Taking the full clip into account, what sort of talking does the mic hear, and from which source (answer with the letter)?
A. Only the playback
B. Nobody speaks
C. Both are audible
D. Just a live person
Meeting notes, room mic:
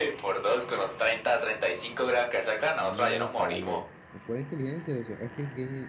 C